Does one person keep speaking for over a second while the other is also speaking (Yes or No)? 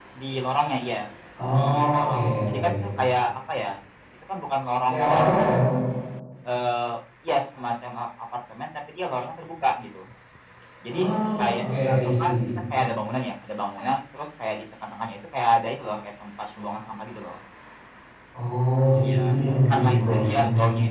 Yes